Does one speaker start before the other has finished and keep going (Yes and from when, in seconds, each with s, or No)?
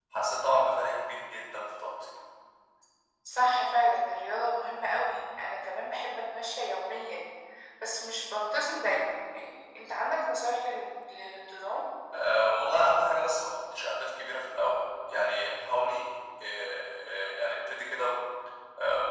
No